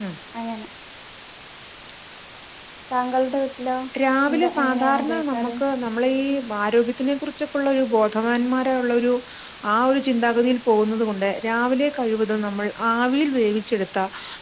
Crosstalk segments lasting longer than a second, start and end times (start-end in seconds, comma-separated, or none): 4.3-5.5